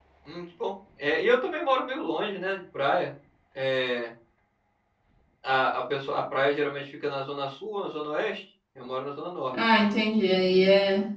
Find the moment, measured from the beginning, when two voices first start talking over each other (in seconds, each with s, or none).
none